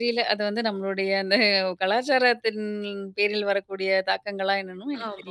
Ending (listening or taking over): taking over